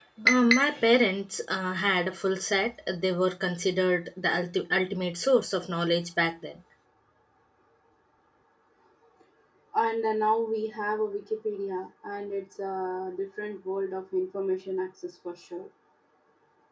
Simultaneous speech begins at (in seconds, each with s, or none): none